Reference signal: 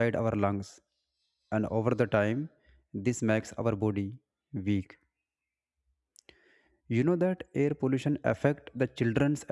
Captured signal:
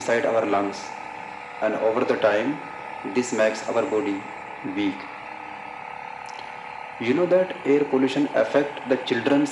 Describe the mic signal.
echo only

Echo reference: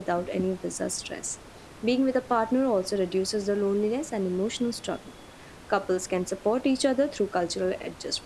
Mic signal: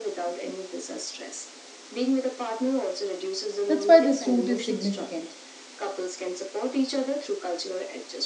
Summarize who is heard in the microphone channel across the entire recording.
both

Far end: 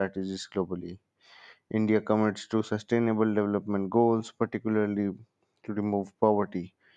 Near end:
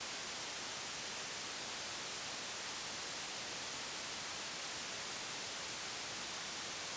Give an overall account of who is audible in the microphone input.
neither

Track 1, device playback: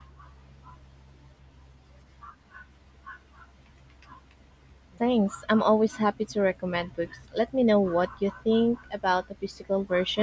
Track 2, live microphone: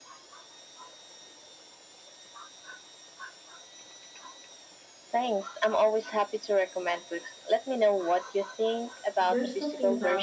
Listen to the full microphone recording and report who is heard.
both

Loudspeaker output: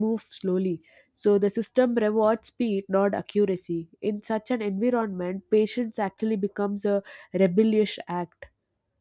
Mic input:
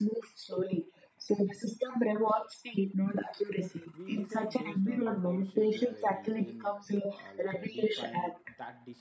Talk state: both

